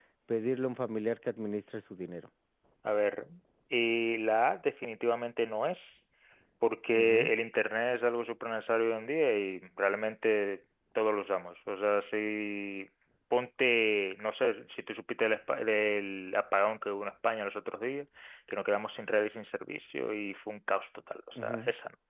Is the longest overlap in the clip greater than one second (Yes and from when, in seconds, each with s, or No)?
No